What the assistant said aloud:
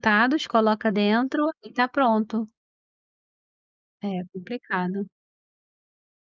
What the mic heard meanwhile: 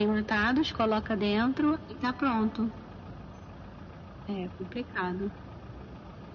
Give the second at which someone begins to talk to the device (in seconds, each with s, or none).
none